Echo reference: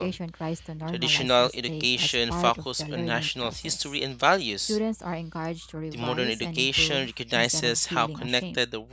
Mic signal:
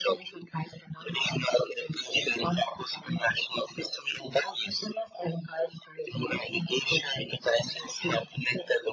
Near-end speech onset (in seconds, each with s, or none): none